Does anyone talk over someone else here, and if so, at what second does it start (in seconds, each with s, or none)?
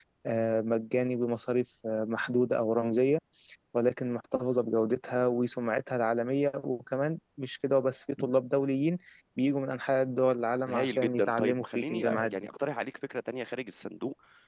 10.7 s